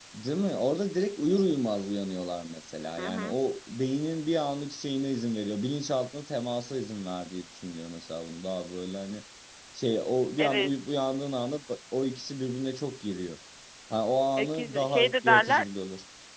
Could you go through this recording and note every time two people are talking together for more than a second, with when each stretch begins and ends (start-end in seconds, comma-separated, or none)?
14.4-15.7